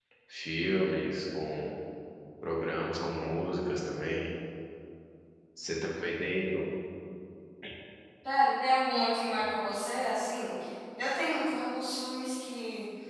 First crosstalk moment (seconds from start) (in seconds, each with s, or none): none